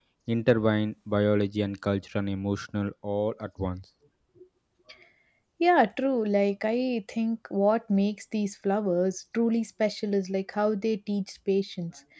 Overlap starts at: none

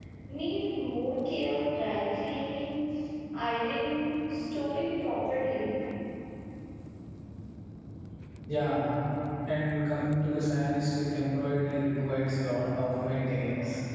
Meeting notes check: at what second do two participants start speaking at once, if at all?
none

